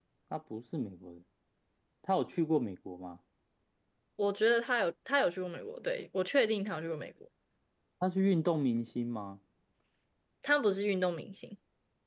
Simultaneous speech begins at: none

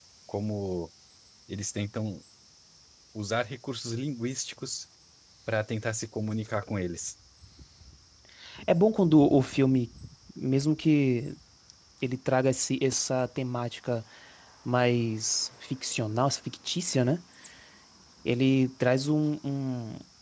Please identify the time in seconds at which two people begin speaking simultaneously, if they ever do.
none

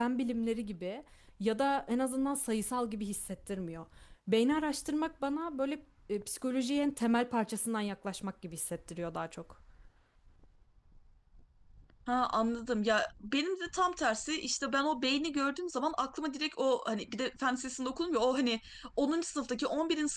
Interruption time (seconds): none

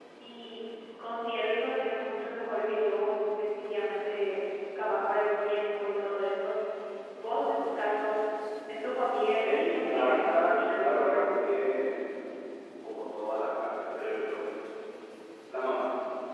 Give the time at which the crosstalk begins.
9.5 s

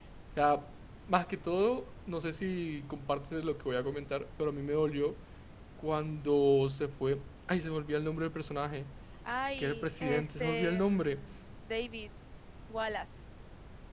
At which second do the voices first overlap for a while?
9.6 s

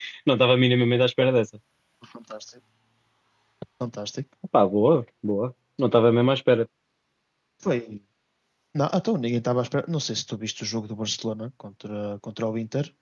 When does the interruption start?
none

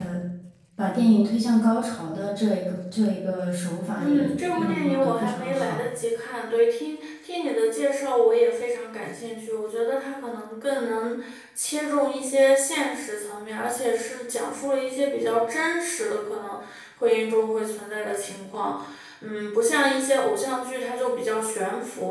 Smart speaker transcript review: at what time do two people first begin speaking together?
4.0 s

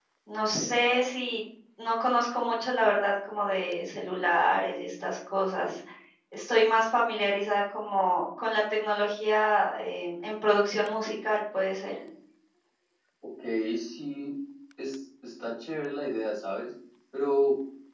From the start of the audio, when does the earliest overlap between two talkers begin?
none

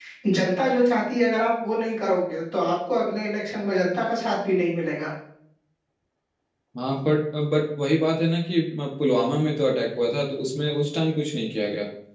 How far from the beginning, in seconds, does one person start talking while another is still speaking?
none

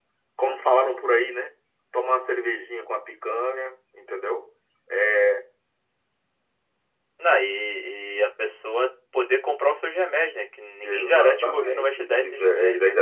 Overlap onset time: 10.8 s

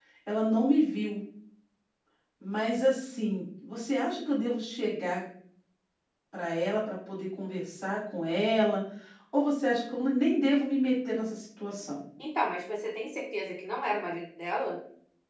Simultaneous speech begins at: none

